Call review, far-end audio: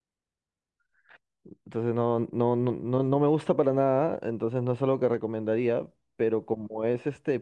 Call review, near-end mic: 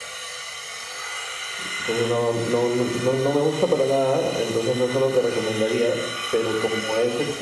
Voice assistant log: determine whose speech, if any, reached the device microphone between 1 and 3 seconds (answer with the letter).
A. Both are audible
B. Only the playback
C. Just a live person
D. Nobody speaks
B